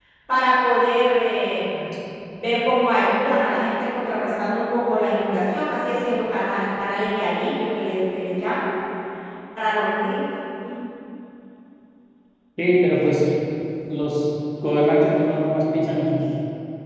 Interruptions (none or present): none